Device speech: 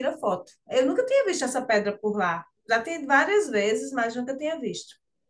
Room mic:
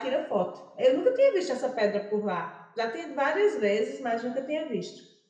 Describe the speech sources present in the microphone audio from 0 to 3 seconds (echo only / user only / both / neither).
echo only